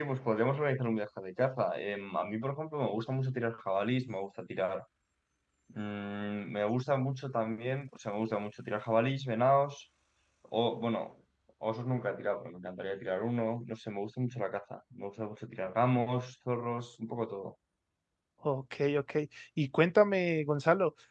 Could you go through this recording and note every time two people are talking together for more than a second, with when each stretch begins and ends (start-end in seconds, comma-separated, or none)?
none